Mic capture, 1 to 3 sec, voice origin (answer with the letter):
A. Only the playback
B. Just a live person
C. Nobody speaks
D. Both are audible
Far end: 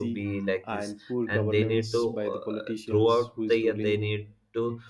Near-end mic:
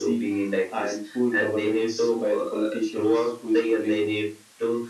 A